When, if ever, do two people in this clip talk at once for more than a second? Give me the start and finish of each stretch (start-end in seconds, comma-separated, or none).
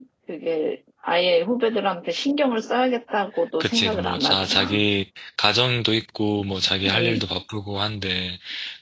3.6-4.8